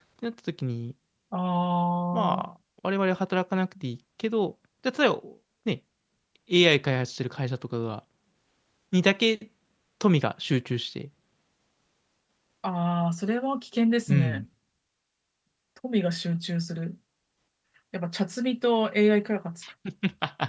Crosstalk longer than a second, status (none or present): none